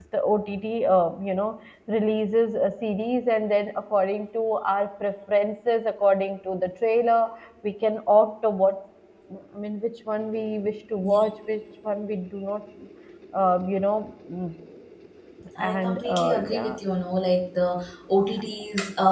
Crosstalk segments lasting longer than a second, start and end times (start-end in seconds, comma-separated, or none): 15.6-16.8